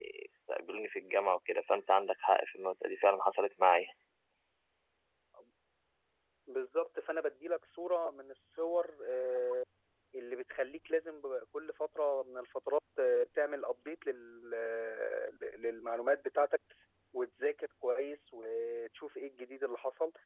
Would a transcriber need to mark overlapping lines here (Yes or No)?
No